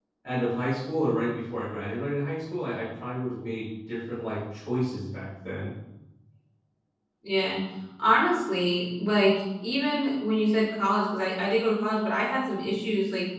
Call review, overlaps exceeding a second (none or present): none